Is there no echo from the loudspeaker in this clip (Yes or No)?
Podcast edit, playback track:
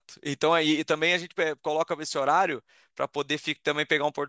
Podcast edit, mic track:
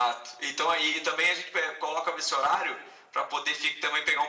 No